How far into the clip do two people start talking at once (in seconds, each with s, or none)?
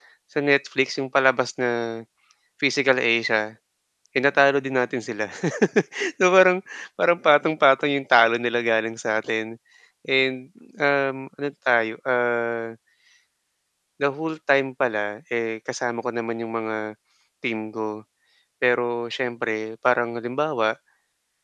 none